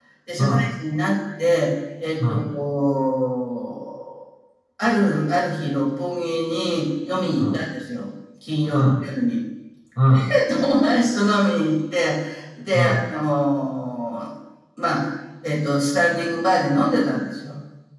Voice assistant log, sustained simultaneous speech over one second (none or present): none